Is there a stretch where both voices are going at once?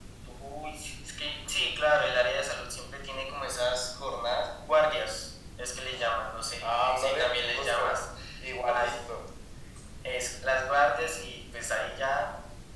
Yes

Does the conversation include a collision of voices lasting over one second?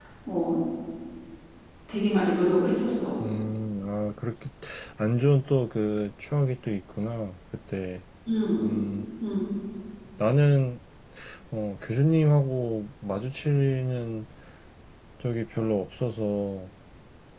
No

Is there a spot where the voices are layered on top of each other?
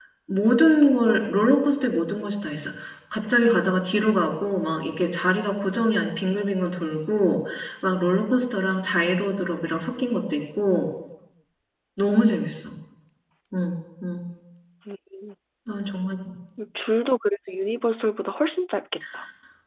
No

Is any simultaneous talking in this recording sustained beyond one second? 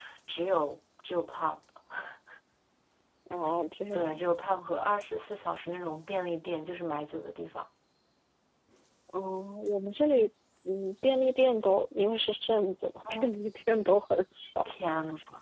No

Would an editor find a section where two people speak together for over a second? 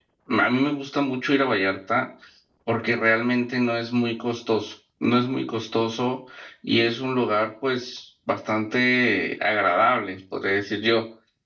No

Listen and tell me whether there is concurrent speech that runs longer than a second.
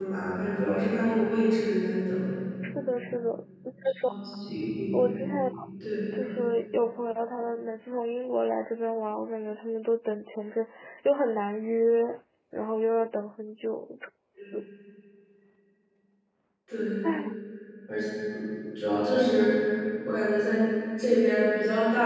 No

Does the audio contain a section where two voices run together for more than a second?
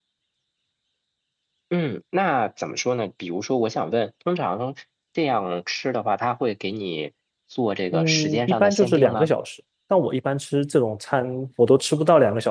Yes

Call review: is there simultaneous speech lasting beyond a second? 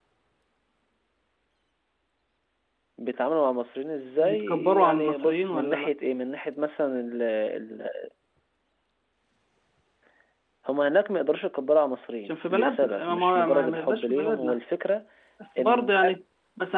Yes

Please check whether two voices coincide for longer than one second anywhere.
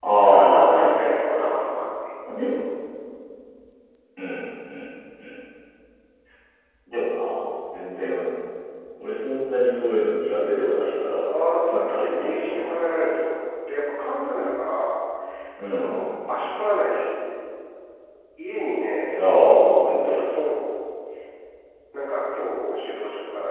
Yes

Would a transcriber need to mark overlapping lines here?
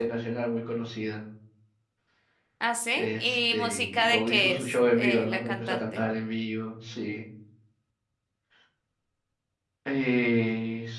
Yes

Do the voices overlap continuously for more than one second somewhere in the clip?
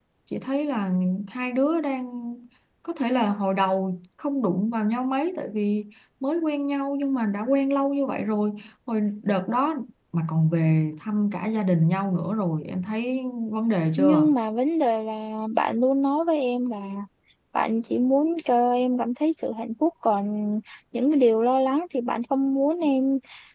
No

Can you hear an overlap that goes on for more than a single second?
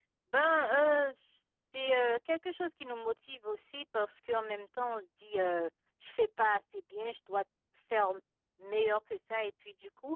No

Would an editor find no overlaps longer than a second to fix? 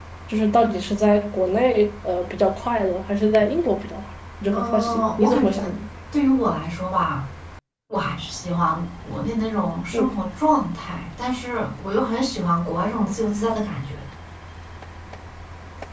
No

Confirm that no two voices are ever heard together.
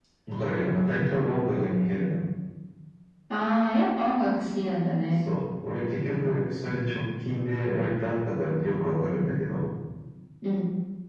Yes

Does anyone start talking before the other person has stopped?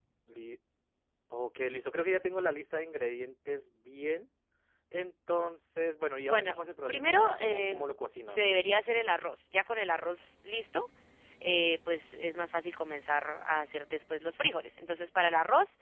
Yes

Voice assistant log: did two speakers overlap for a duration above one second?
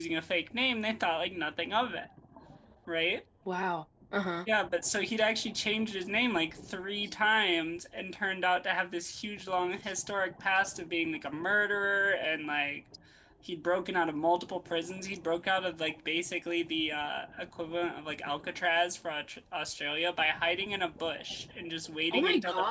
No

